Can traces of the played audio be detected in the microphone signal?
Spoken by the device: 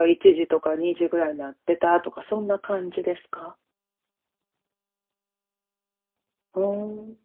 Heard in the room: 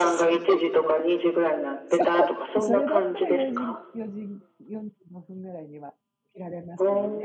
Yes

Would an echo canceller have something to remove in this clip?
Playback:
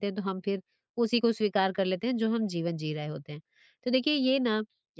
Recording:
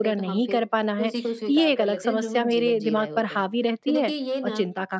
Yes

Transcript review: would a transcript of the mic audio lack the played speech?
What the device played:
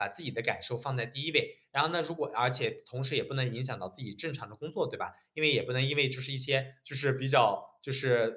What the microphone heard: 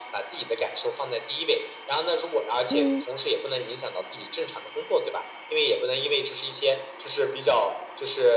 No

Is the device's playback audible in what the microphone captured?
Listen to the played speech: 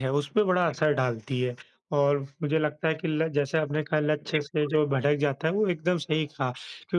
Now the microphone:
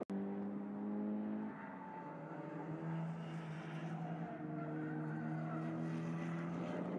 No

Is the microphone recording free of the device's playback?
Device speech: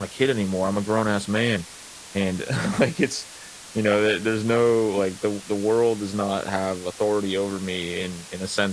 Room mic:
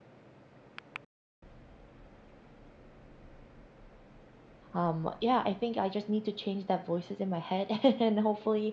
Yes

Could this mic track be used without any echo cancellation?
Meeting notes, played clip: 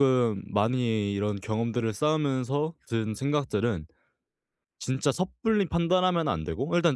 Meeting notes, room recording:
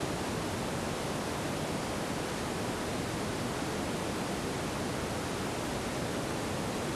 Yes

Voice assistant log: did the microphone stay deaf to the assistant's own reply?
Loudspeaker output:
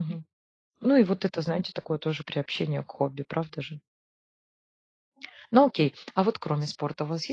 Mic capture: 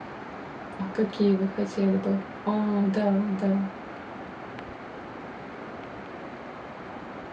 Yes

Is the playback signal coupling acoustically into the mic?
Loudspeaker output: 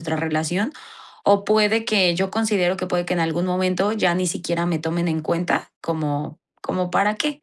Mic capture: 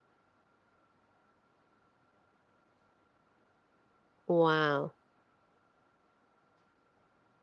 No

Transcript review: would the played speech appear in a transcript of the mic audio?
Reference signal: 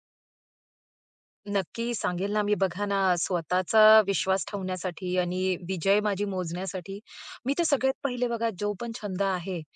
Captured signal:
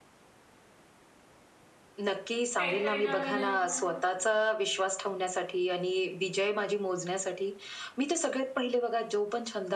Yes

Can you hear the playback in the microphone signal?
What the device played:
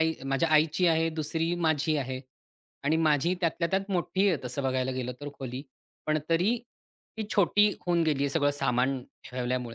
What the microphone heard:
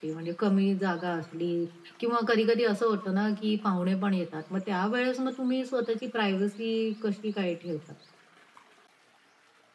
No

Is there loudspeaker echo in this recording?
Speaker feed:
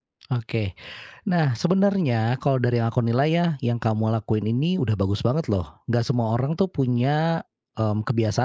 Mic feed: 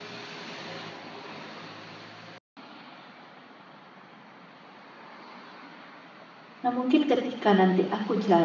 No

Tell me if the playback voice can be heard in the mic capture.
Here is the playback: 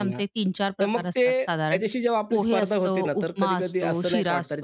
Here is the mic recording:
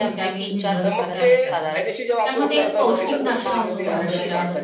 Yes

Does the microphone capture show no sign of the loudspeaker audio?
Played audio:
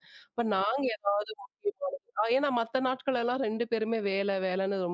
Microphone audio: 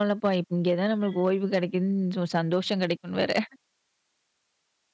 Yes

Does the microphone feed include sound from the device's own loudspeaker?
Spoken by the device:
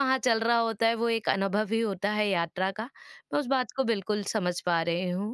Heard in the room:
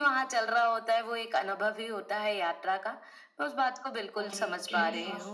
Yes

